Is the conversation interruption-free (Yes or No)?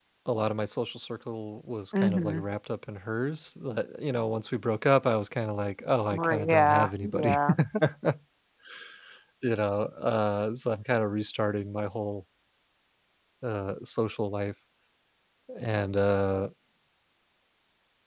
No